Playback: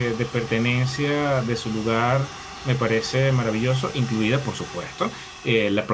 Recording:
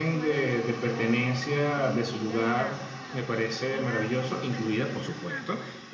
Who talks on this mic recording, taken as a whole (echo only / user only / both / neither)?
both